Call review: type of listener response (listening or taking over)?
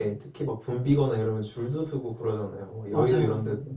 taking over